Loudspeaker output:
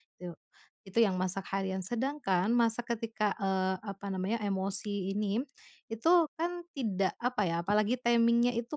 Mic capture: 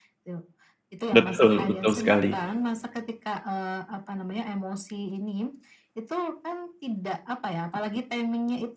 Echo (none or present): present